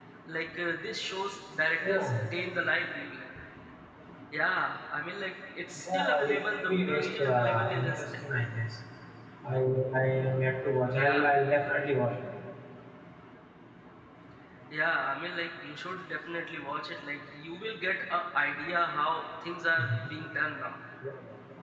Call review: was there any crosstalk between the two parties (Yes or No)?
Yes